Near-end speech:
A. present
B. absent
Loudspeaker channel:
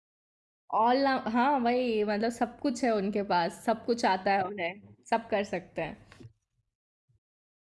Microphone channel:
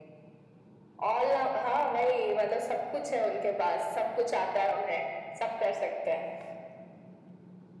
B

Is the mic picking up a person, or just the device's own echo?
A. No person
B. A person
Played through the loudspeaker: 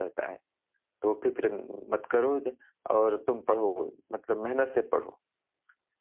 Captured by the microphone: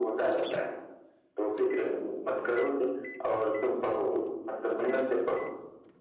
A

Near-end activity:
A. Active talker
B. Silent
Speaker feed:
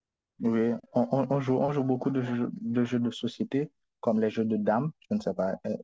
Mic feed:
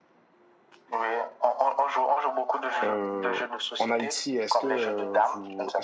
A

